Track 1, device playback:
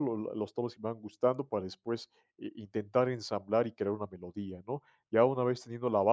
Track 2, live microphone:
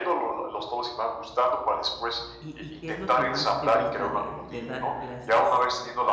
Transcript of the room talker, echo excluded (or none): ¿Y y qué es lo que más te gusta de de dar clases?